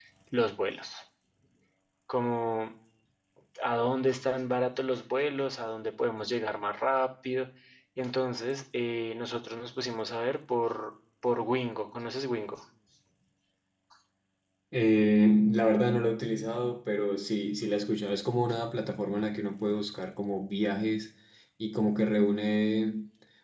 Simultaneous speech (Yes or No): No